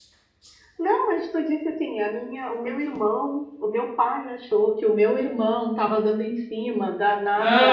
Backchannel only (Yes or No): No